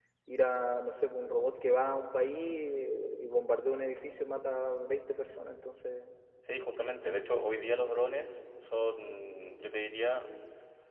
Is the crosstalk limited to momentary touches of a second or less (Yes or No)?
Yes